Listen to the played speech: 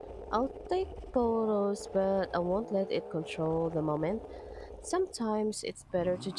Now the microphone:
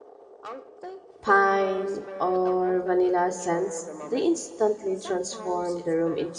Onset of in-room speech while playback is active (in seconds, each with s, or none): 1.2 s